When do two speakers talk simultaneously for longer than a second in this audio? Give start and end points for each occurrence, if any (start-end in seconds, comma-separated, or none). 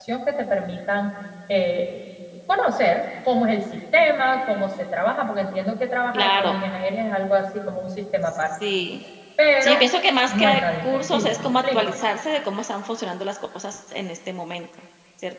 10.3-12.0